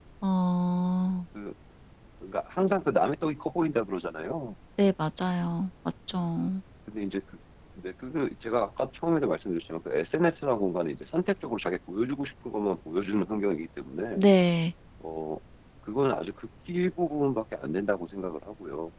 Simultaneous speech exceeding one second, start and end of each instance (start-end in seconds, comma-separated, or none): none